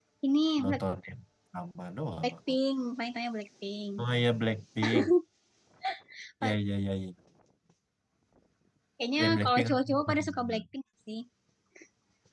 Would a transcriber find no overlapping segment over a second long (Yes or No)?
No